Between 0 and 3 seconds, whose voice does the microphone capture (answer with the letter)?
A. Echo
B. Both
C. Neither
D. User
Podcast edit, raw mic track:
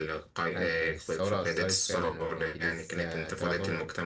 B